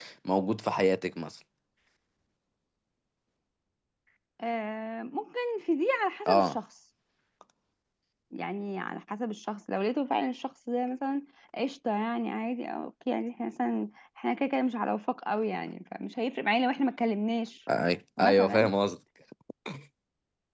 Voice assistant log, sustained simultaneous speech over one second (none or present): none